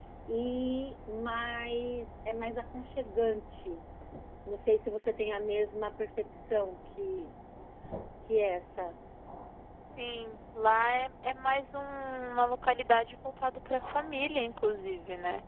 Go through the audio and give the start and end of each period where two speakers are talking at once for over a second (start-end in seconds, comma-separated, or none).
none